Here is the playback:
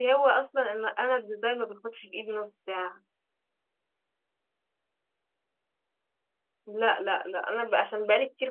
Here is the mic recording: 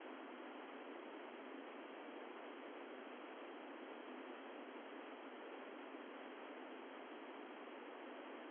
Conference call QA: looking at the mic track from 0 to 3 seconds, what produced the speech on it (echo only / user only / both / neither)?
neither